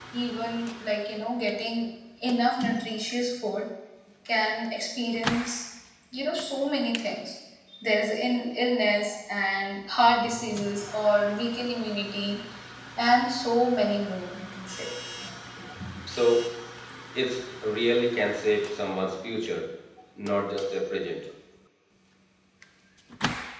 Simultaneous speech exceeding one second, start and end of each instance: none

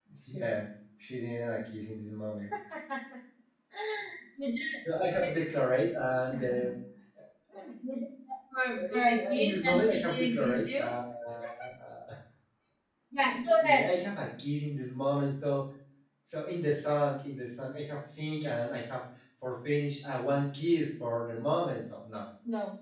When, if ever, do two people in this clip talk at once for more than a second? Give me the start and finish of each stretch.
8.9-10.9

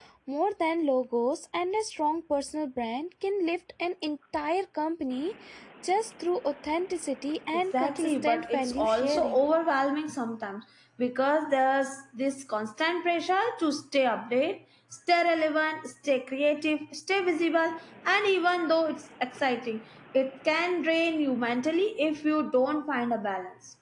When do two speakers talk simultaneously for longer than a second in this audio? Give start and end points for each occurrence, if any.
7.8-9.5

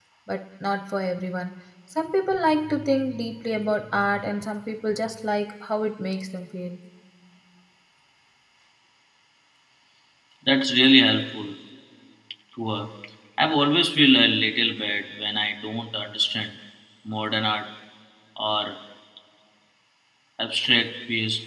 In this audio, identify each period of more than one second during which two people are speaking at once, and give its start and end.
none

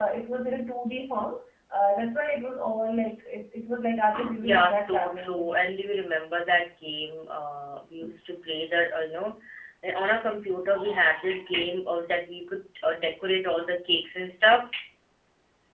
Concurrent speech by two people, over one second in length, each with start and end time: 4.4-5.6

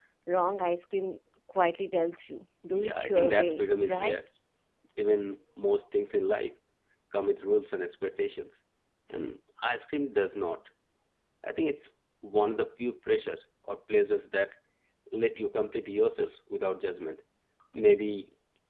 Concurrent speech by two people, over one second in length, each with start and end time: 2.8-4.2

